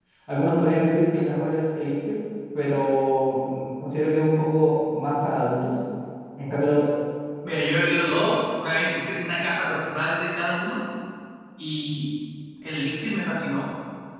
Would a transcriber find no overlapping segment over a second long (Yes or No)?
Yes